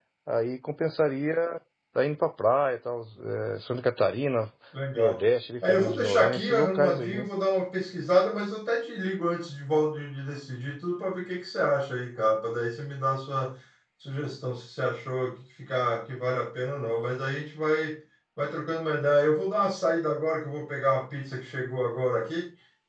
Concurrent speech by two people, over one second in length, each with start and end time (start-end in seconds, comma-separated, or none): 5.7-7.3